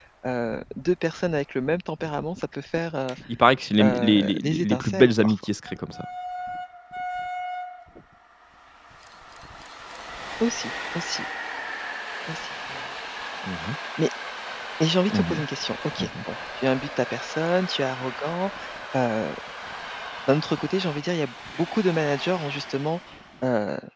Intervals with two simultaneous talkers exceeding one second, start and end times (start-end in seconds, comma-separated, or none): 3.8-5.3